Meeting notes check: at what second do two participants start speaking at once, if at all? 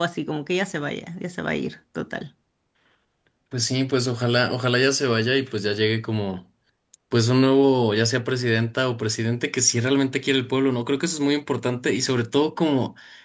none

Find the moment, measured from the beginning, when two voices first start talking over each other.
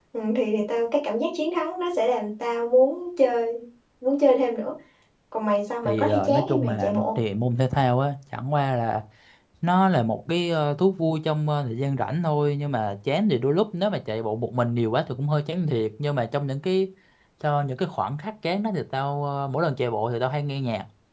6 s

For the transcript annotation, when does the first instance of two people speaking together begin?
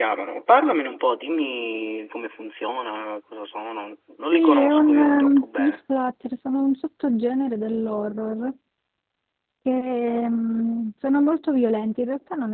4 s

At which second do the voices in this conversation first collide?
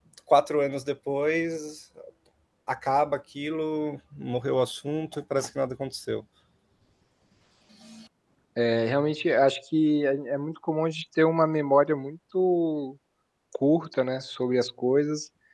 none

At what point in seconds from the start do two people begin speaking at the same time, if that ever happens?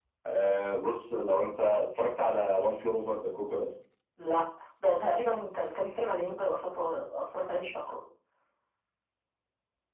none

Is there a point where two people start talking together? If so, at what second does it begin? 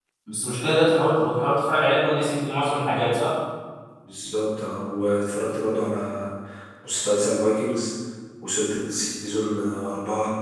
none

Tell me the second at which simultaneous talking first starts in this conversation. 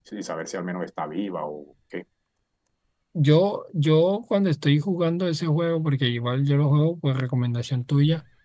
none

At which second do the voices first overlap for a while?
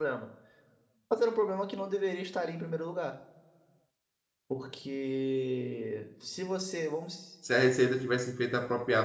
none

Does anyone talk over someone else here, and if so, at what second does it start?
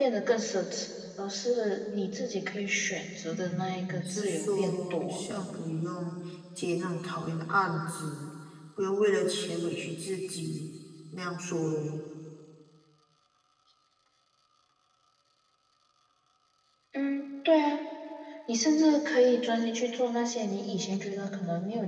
3 s

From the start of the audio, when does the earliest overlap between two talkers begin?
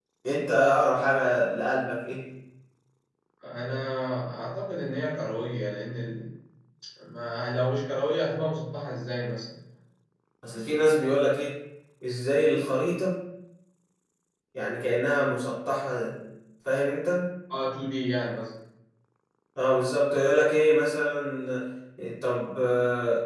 none

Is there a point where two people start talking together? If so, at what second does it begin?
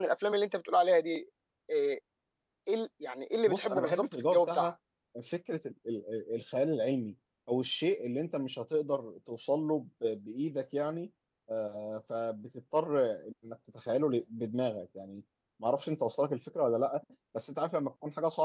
3 s

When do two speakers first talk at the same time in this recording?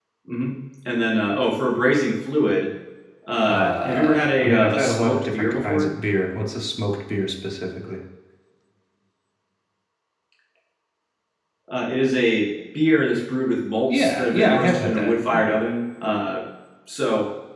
3 s

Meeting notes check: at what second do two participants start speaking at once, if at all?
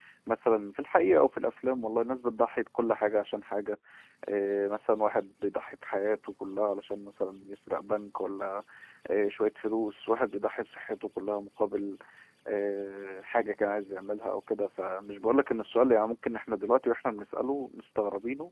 none

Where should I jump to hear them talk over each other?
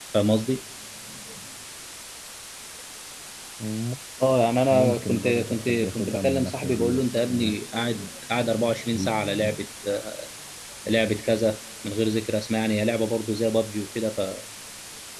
5 s

